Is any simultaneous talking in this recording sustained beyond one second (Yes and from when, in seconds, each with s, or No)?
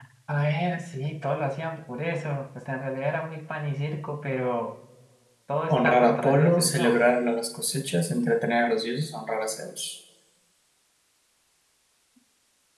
Yes, from 5.7 s